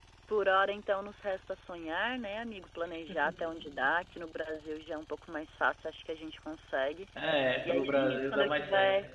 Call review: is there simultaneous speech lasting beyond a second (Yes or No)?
Yes